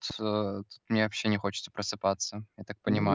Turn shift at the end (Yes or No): Yes